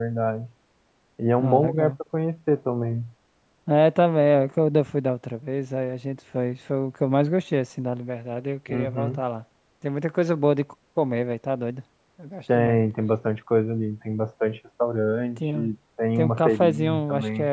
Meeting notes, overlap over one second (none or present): present